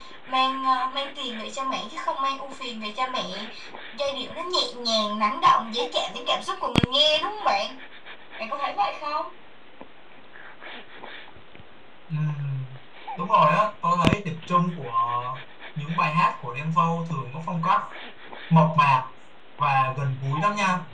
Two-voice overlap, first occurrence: none

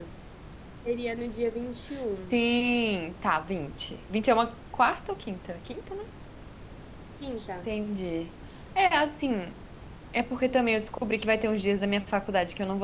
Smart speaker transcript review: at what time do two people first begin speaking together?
none

